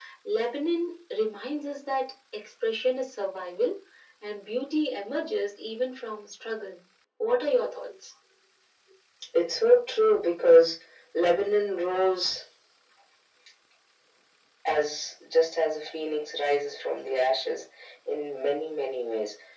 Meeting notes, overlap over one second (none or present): none